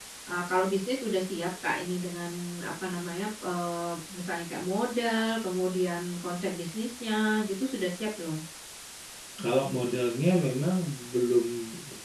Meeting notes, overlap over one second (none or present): none